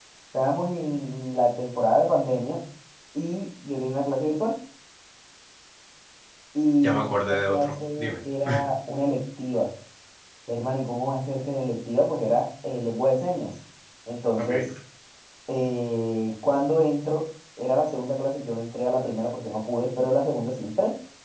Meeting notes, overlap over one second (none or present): present